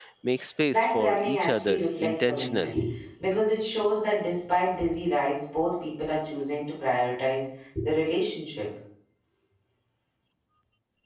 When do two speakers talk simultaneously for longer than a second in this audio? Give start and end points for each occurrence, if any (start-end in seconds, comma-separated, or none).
0.7-2.8